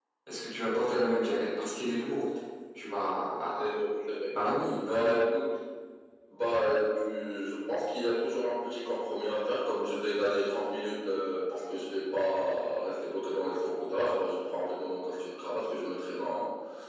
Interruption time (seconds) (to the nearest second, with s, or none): 1 s